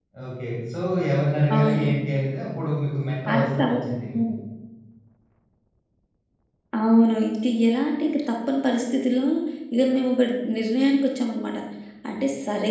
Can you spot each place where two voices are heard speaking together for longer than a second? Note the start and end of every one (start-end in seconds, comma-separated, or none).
none